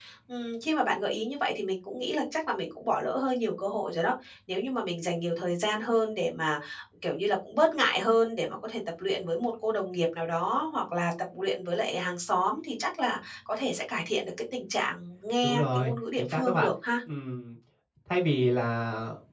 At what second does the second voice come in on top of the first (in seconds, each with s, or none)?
15.4 s